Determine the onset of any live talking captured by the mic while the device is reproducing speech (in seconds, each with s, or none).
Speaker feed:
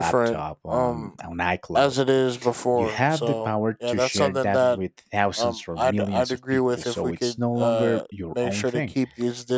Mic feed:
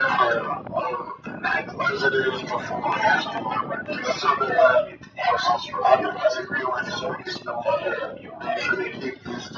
none